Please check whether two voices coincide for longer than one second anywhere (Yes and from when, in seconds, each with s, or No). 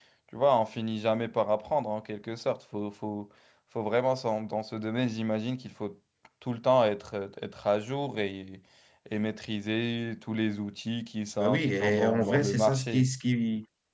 Yes, from 11.4 s